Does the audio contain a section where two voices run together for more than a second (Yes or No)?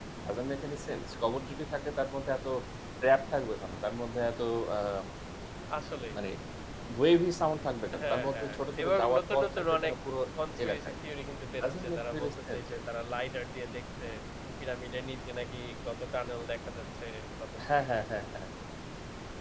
Yes